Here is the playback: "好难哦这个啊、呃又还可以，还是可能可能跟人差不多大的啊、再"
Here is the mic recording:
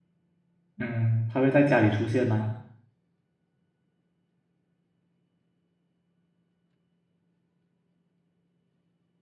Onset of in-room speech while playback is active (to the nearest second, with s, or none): 1 s